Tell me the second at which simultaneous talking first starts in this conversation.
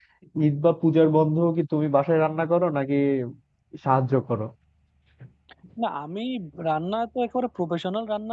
none

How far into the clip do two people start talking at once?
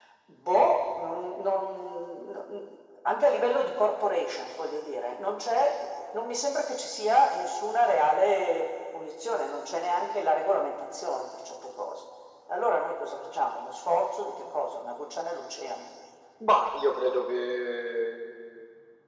none

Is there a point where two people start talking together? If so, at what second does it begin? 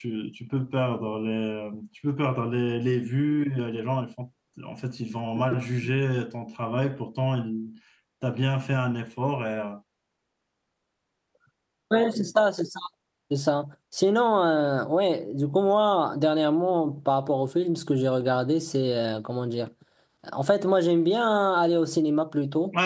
none

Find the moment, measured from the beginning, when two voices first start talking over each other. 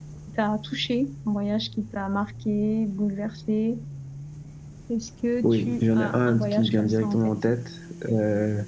5 s

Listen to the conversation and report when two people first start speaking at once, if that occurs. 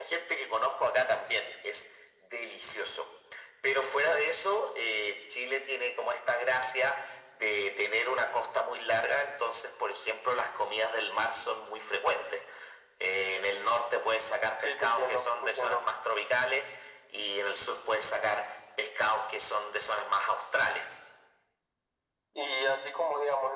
15 s

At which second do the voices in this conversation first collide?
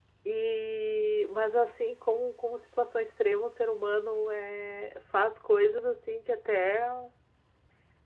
none

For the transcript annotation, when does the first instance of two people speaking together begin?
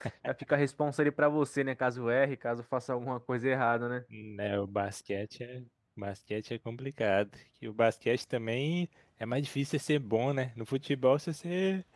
none

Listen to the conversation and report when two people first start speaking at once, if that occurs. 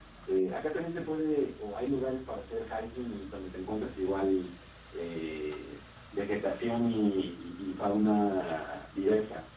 none

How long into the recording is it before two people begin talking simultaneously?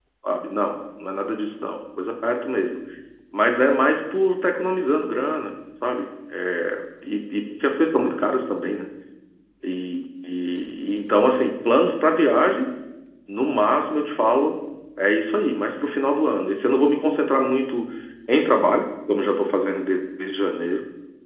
none

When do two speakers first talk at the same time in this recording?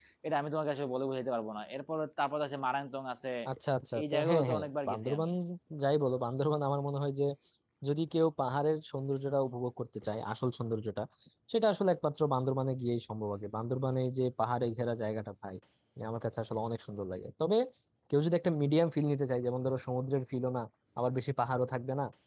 4 s

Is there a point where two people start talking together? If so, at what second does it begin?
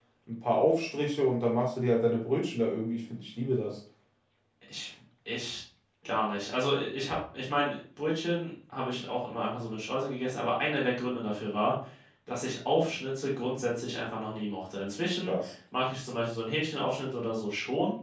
none

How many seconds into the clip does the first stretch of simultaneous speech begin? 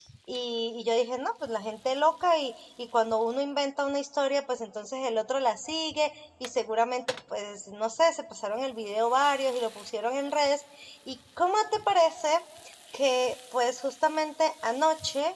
none

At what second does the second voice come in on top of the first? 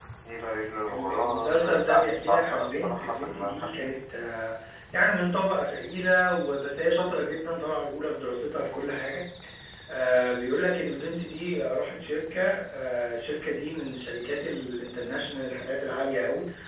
1 s

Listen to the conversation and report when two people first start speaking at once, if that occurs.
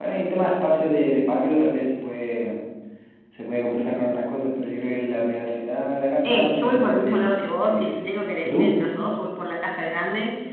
6 s

